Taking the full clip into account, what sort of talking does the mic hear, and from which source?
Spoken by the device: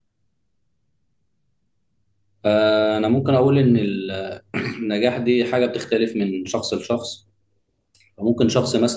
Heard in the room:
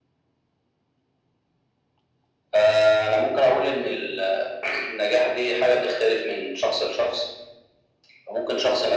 echo only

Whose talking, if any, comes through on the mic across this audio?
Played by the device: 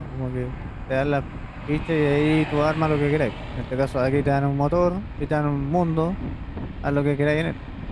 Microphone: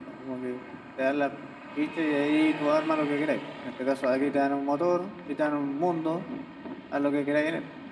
echo only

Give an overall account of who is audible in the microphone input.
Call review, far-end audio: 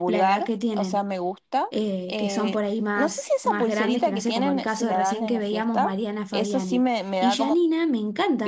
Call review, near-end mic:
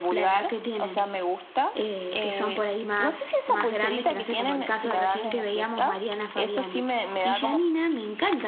echo only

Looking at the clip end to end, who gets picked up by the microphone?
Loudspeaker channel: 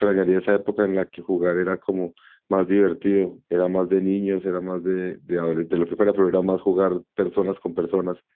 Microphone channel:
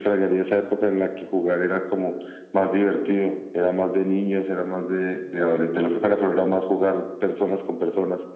echo only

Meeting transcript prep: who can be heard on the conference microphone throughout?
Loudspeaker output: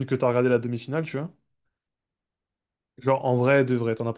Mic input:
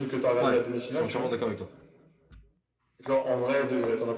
both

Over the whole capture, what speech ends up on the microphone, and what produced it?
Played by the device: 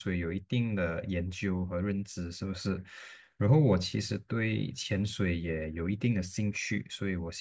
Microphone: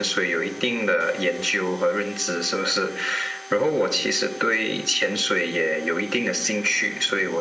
echo only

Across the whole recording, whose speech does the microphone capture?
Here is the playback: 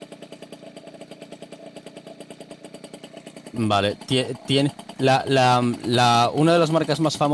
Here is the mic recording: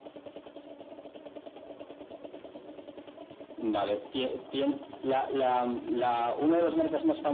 echo only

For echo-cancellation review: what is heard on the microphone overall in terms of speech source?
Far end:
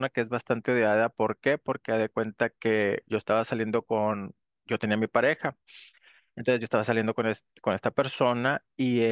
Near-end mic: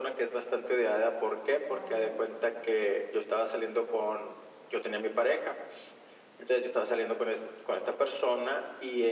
both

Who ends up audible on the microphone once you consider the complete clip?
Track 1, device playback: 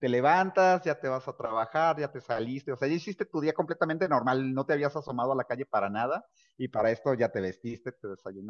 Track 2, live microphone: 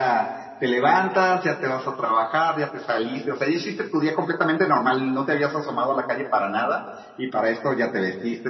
echo only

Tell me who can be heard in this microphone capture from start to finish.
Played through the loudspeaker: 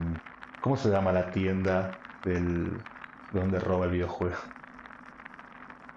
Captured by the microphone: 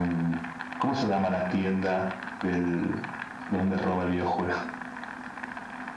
echo only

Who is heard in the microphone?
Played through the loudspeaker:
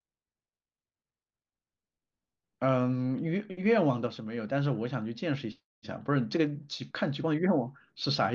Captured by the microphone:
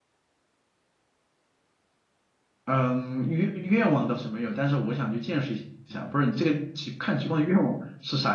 echo only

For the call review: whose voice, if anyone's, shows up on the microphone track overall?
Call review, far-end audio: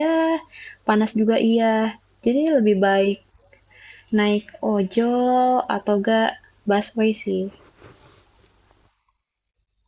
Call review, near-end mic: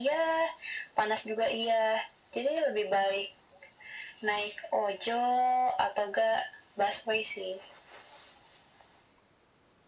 echo only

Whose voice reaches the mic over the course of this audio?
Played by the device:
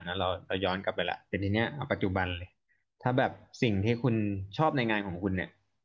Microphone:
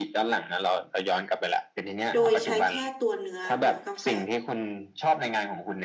both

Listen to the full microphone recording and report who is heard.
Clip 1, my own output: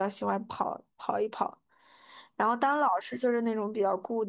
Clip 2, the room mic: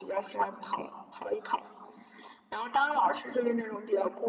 echo only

